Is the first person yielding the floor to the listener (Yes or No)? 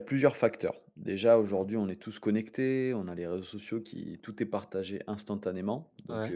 No